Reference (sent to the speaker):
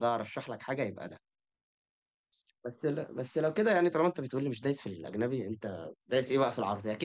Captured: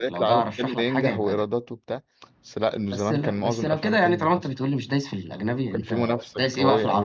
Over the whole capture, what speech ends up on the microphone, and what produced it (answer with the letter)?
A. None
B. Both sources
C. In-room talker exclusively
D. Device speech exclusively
B